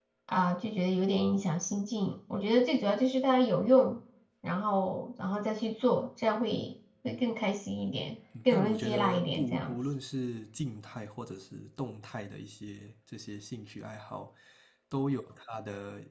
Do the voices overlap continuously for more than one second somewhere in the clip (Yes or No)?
Yes